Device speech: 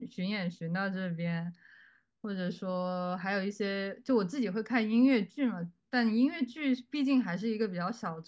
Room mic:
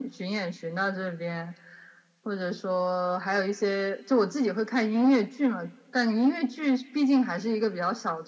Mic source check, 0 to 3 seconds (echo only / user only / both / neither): echo only